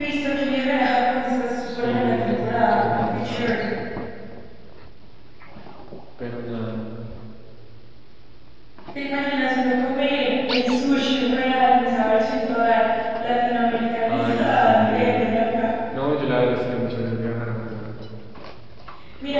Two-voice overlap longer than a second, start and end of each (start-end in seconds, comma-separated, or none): 1.7-3.7, 14.1-15.3